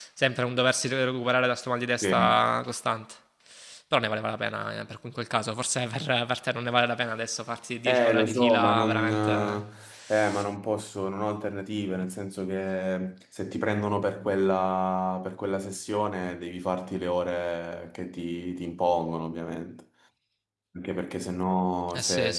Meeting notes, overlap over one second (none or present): present